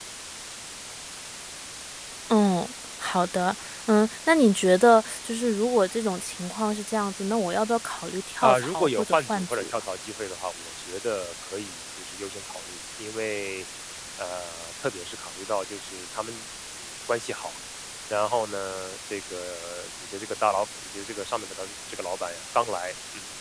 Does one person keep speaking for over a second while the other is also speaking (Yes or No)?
Yes